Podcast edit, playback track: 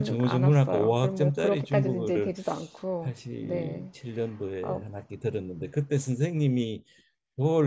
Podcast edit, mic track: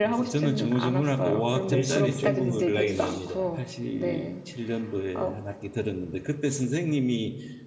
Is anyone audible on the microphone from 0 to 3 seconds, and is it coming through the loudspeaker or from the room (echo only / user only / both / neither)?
both